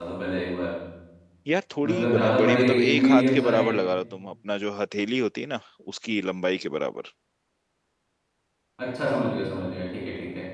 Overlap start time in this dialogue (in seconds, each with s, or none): 1.9 s